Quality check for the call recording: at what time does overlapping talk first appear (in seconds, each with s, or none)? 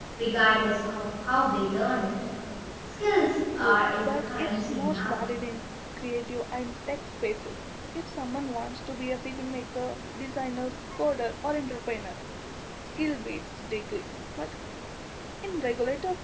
3.6 s